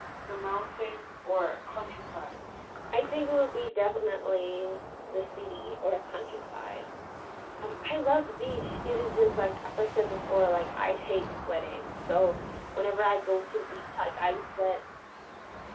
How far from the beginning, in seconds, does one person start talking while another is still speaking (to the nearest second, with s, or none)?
none